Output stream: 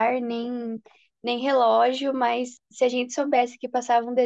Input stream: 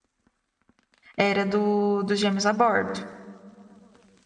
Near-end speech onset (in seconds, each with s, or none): 1.2 s